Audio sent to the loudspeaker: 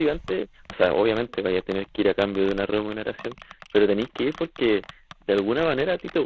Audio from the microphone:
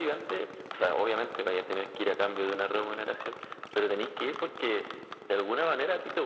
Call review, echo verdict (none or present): present